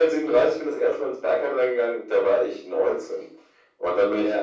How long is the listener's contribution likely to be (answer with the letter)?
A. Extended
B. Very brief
A